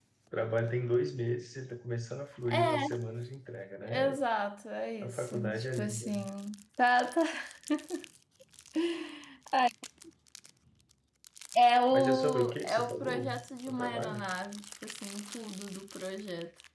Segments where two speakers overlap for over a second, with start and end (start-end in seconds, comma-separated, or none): 5.0-6.2, 11.9-13.3